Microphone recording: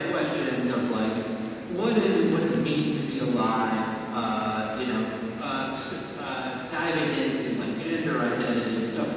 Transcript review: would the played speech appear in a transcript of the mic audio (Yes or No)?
Yes